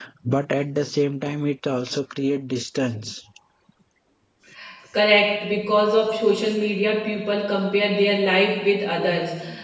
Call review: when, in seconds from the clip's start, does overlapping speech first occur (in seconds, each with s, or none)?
none